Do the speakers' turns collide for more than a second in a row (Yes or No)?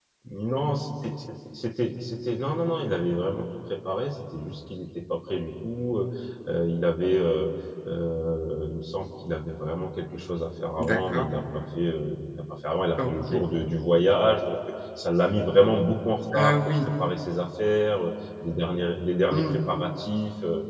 No